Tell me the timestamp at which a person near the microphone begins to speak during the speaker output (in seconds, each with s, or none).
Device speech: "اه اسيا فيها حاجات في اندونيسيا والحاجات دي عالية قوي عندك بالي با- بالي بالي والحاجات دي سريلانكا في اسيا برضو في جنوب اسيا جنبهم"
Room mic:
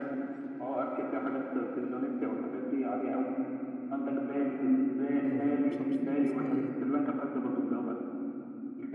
5.2 s